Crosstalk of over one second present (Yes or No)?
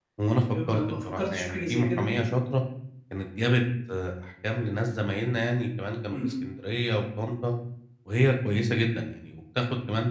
Yes